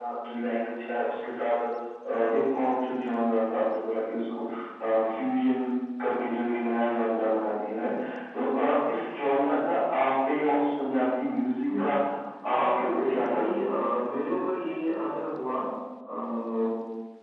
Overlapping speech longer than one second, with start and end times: 12.5-13.7

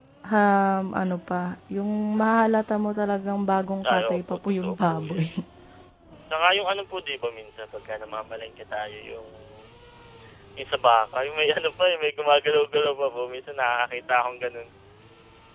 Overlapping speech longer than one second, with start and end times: 3.9-5.2

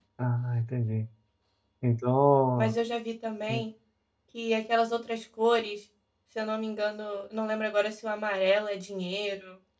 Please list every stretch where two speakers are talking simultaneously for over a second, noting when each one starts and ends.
none

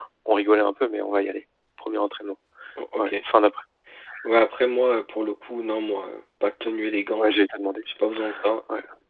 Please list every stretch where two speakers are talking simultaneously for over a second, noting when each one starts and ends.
none

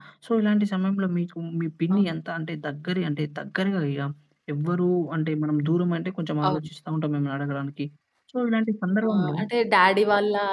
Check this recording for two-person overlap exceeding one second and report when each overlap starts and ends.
none

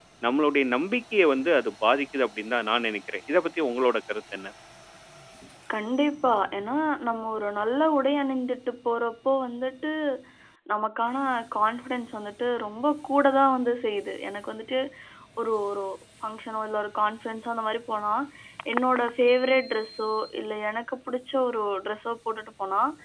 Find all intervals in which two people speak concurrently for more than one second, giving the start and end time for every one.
none

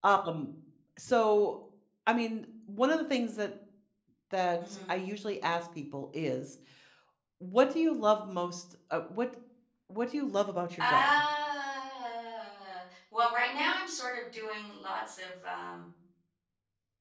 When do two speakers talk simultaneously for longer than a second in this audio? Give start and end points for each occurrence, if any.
none

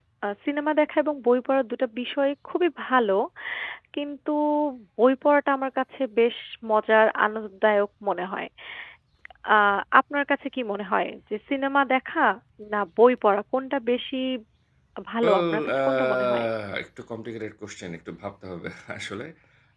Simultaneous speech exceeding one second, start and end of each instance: 15.2-16.4

